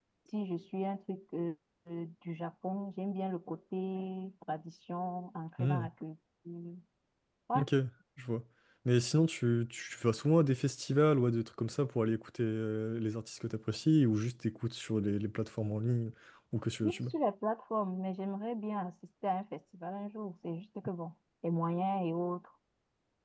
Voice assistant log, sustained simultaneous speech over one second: none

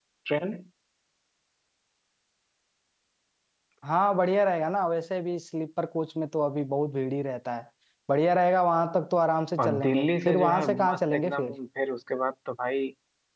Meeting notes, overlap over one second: present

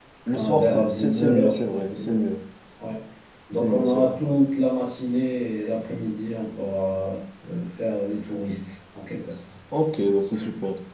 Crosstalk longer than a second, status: present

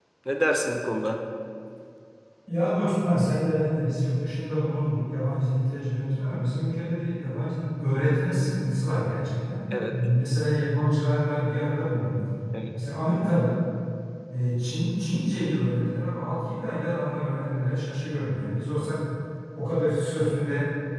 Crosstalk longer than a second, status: none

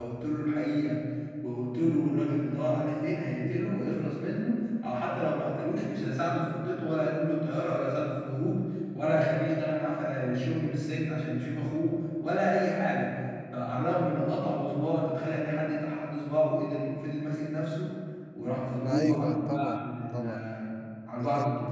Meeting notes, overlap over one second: present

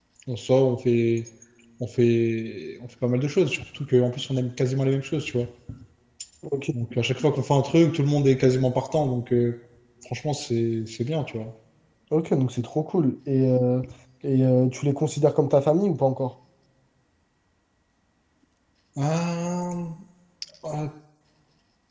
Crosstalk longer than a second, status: none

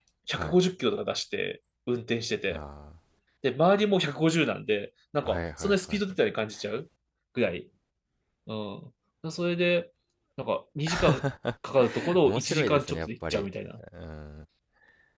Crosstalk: present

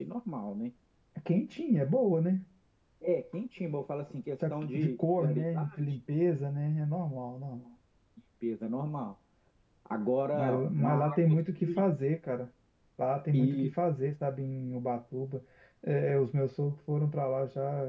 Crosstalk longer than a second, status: present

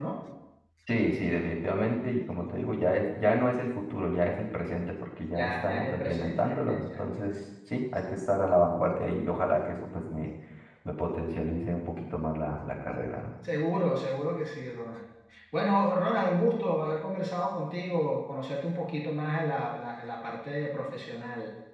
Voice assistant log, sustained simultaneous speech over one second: present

